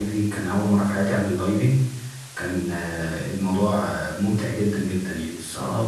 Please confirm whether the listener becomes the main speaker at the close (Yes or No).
Yes